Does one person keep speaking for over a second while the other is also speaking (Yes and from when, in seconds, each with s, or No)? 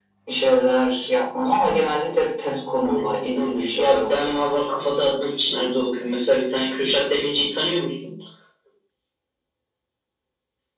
Yes, from 2.8 s